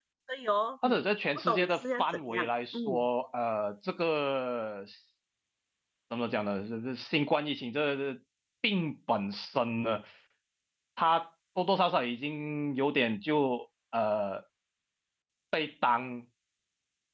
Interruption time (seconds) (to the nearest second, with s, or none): 1 s